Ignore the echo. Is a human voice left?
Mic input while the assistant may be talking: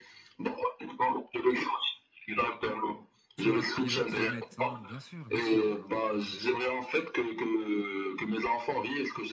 Yes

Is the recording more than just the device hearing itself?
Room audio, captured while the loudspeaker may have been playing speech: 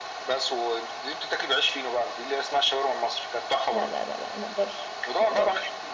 Yes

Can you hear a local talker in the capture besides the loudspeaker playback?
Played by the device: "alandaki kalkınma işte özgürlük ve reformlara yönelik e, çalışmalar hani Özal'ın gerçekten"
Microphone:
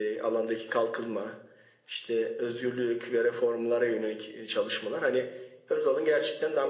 No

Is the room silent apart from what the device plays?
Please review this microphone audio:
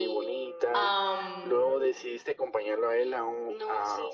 No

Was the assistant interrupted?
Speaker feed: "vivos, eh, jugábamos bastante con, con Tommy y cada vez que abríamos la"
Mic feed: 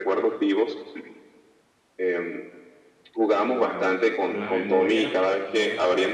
Yes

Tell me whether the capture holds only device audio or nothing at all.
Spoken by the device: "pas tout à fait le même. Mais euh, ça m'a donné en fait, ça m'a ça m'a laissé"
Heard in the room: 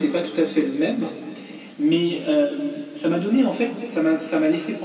Yes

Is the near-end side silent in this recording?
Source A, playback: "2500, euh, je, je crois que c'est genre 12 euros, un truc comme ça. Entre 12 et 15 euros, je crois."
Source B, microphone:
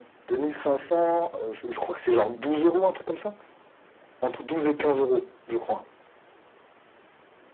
Yes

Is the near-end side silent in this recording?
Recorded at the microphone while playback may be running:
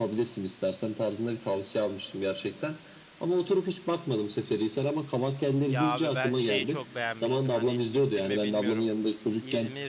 No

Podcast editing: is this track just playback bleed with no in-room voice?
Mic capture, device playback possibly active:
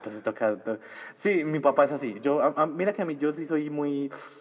Yes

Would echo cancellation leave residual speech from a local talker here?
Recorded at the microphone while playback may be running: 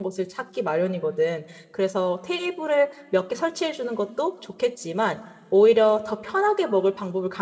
Yes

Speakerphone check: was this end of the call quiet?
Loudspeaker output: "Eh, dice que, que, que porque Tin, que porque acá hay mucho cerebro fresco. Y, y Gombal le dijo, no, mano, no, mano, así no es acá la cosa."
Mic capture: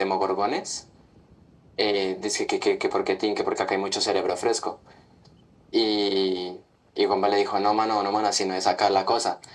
Yes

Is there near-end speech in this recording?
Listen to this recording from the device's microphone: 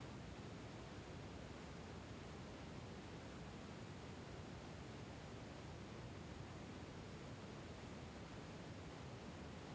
No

